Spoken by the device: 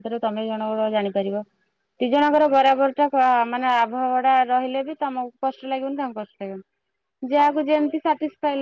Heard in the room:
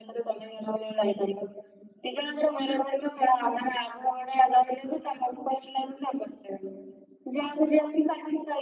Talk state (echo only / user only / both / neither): echo only